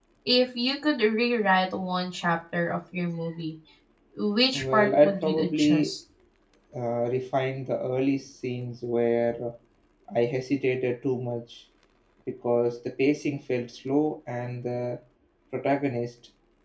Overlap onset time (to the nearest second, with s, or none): 5 s